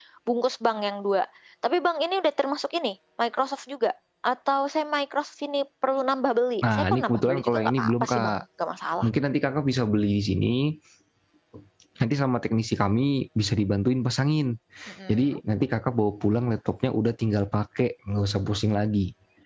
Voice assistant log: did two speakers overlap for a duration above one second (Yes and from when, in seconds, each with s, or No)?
Yes, from 6.7 s